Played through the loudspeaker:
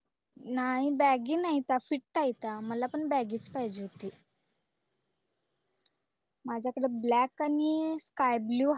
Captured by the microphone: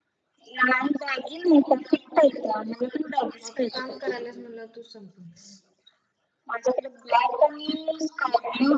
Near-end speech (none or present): present